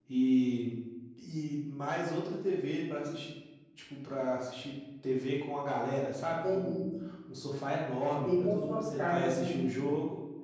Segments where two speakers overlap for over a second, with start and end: 8.2-9.5

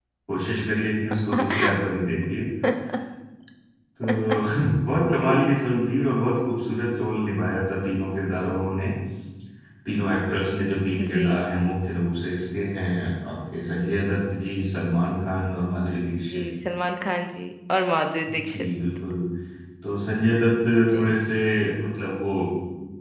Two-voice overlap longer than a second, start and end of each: none

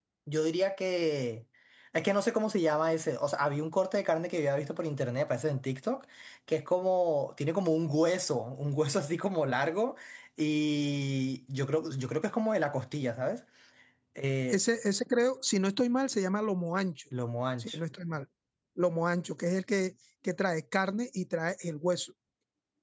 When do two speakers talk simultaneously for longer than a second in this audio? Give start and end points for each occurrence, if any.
none

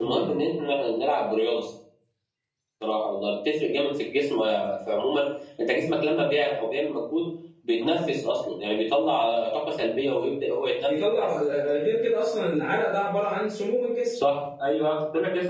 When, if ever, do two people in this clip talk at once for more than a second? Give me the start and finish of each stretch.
none

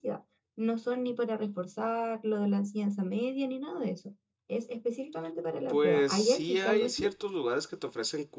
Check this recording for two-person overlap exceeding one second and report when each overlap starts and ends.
5.7-7.1

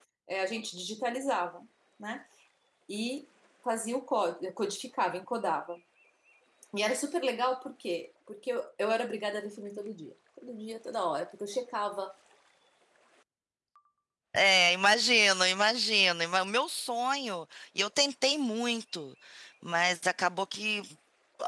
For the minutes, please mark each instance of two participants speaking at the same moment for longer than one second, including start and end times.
none

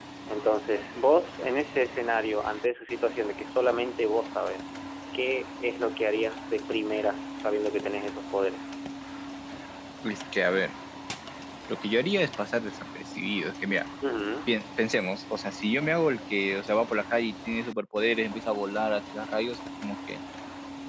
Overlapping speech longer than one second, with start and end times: none

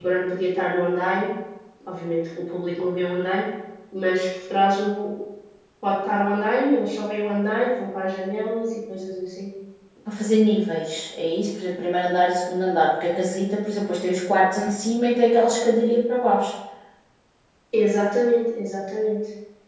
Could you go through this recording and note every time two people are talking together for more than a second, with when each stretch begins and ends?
none

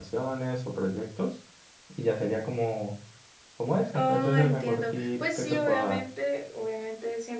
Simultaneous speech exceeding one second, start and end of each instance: 4.0-6.0

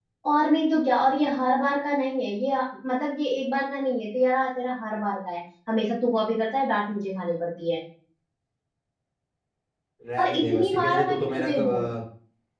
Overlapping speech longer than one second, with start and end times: 10.2-11.9

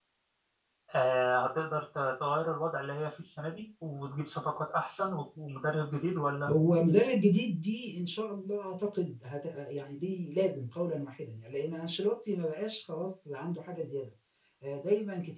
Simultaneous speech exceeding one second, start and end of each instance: none

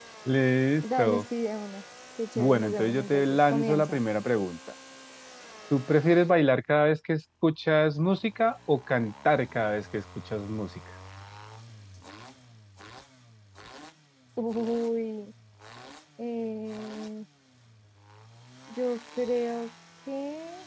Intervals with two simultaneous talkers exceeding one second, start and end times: 2.4-4.0

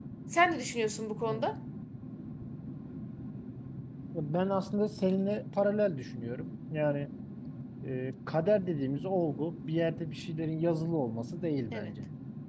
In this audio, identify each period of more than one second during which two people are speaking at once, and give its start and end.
none

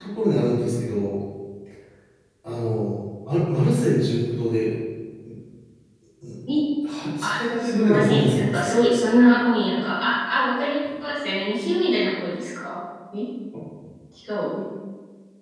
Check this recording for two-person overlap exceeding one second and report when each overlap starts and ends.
7.2-8.7

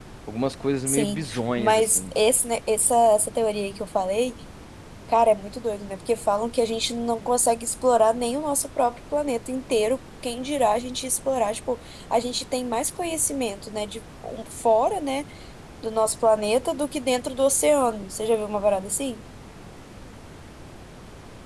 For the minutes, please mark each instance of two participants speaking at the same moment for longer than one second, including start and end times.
0.9-2.1

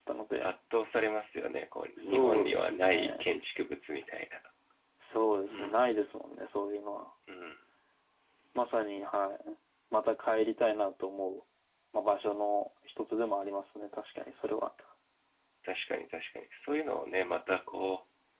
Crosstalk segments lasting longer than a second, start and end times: 2.0-3.2

